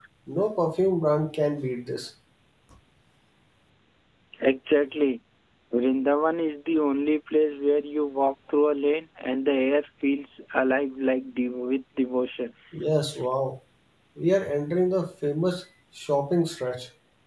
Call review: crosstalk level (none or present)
none